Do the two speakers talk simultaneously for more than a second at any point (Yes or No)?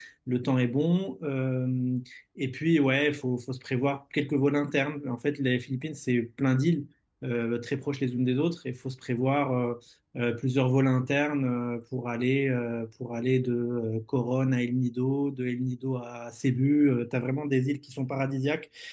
No